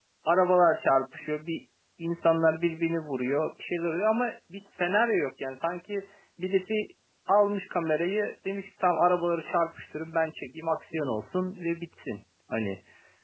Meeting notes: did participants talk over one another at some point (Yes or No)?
No